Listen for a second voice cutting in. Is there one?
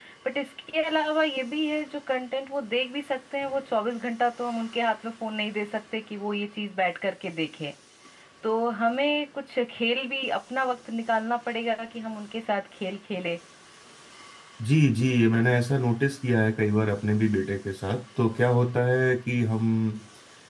No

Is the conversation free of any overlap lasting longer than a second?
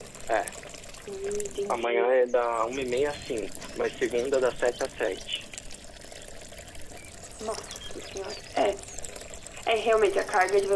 Yes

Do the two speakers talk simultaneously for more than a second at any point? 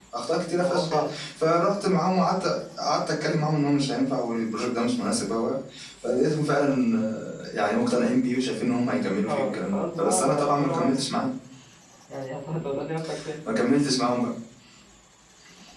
Yes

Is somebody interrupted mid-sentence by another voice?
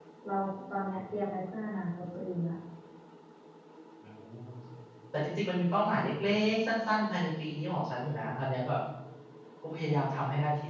No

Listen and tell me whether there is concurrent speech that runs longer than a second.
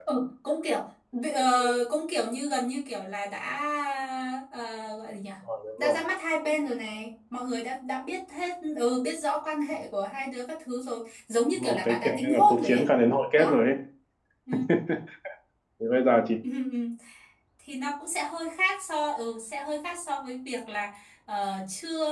Yes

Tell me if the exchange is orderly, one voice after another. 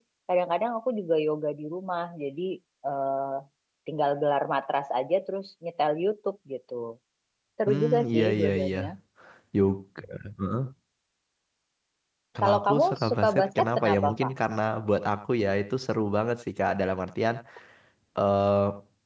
No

